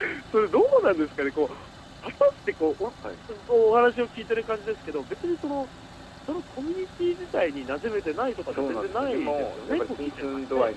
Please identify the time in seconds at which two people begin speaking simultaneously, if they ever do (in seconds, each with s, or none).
8.5 s